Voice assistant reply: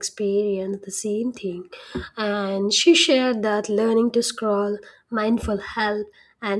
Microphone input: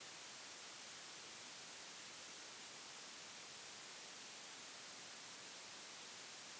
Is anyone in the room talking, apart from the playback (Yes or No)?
No